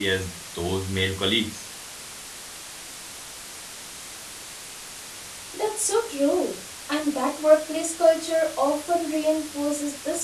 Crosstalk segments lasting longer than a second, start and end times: none

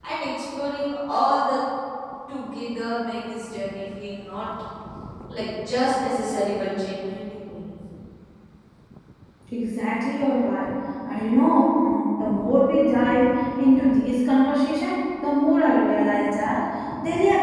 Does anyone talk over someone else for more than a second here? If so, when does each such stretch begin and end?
none

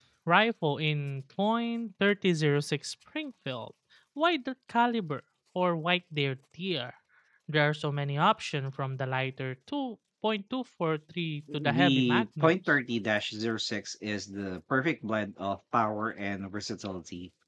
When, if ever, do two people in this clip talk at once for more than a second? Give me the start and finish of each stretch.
11.5-12.8

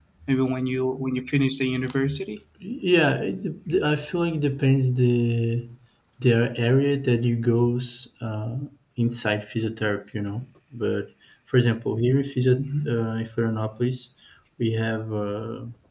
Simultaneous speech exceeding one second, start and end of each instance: none

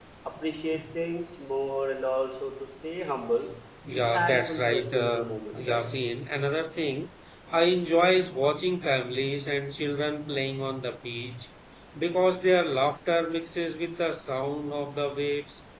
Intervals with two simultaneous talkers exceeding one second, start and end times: 3.9-5.8

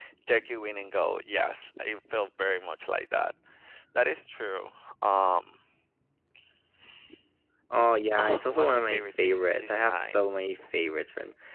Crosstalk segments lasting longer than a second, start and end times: 8.2-10.1

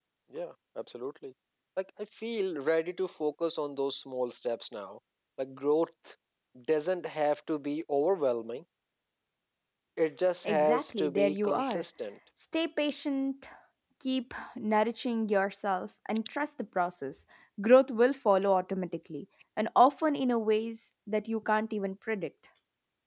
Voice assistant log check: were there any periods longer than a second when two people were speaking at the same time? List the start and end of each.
10.4-11.8

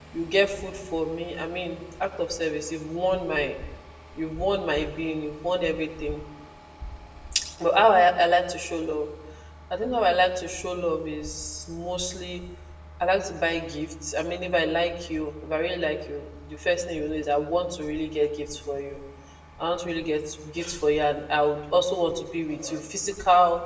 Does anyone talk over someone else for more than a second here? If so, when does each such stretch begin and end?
none

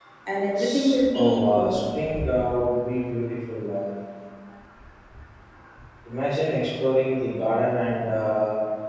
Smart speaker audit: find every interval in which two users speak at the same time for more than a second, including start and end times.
0.6-1.8

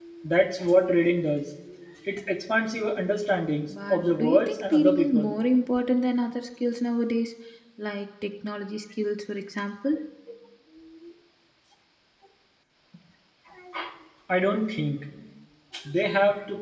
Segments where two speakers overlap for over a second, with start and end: 3.9-5.3

